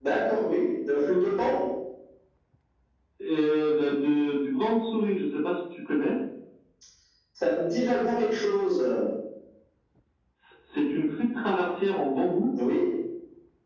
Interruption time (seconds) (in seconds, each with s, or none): none